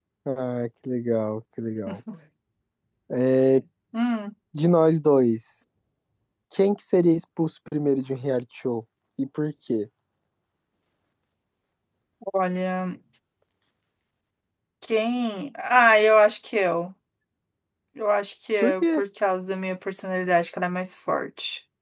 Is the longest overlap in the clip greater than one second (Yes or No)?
No